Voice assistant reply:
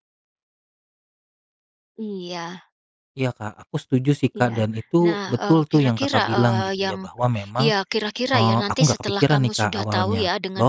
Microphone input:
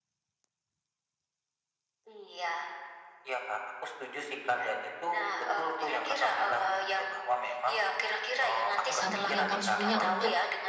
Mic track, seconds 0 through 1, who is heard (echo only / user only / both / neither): neither